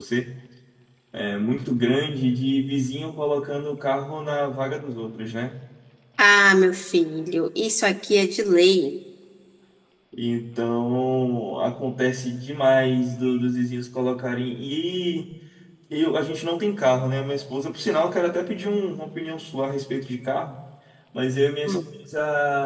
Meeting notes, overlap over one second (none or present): none